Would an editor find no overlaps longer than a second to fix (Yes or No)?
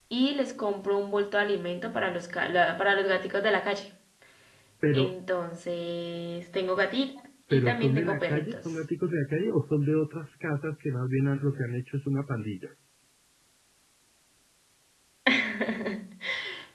No